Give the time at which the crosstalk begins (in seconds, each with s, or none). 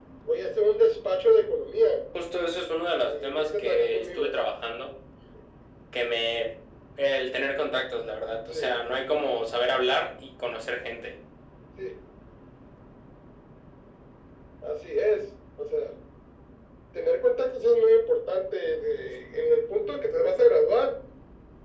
3.0 s